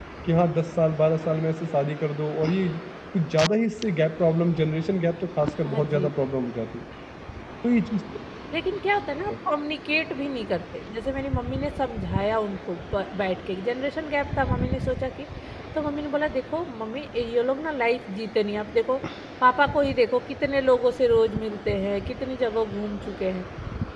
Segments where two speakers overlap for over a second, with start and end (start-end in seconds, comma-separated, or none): none